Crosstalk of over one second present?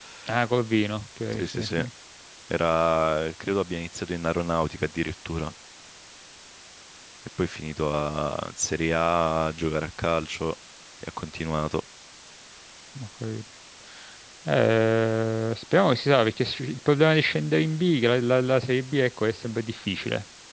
No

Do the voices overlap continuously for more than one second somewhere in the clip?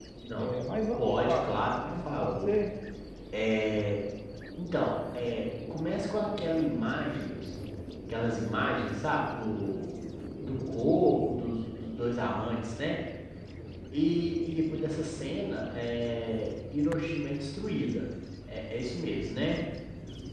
Yes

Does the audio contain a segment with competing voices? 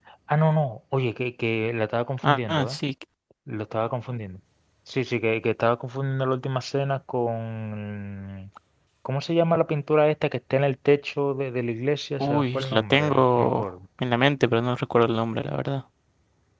Yes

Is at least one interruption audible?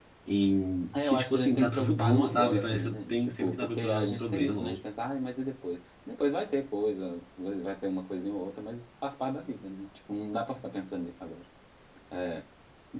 Yes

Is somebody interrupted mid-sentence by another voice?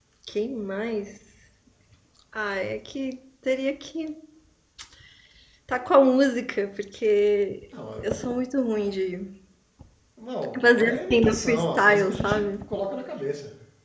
Yes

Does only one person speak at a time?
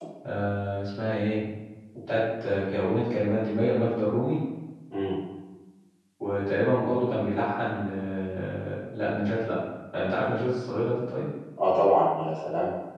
Yes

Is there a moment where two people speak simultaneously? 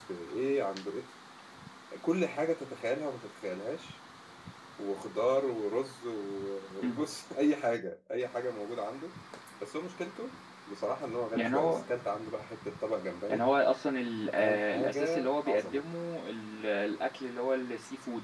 Yes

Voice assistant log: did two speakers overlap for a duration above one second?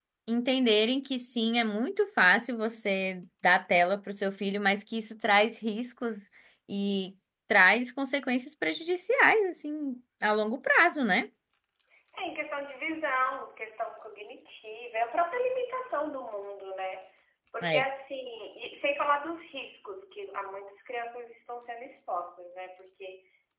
No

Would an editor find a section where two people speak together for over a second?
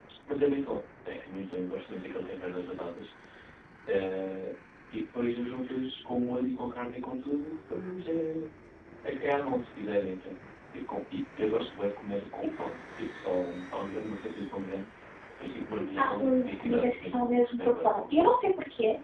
Yes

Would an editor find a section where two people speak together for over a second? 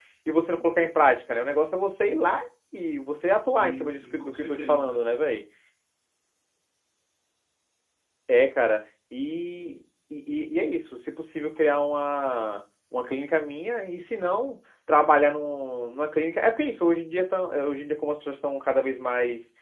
Yes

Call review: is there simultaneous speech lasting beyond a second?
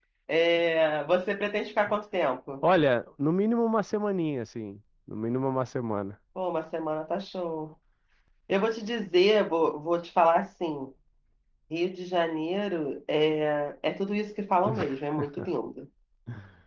No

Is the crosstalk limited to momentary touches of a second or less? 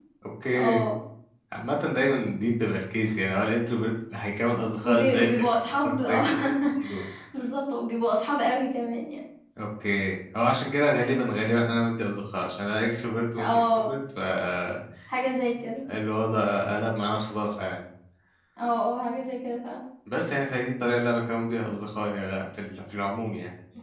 No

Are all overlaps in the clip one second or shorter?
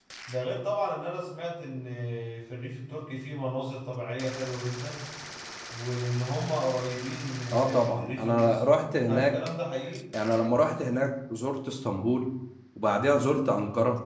No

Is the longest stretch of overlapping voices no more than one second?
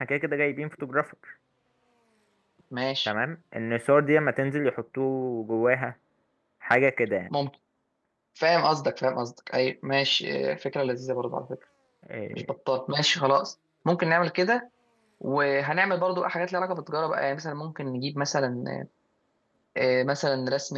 Yes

